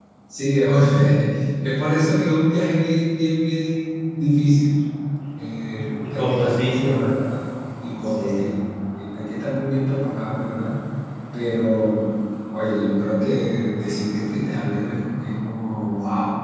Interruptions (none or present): present